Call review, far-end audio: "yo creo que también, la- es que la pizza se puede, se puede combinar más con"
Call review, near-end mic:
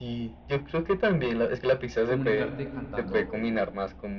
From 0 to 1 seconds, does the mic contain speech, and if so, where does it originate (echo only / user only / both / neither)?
echo only